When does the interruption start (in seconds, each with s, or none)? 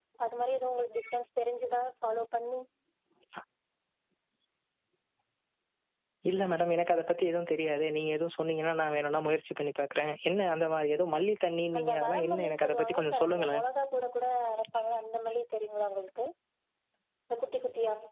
11.7 s